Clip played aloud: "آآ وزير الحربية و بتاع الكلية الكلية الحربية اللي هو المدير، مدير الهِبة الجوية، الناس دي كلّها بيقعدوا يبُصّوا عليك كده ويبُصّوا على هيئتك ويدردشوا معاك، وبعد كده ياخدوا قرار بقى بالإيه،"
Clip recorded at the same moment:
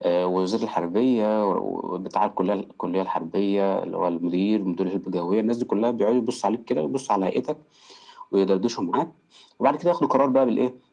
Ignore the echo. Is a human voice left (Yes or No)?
No